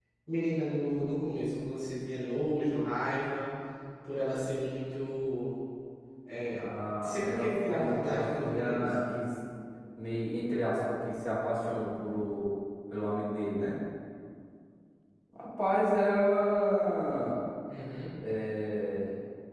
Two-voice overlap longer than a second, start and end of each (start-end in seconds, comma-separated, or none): 7.0-8.9